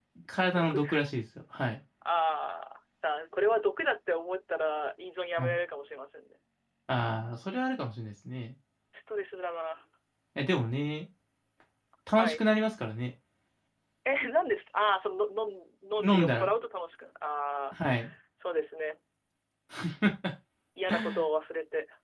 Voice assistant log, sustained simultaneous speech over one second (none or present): none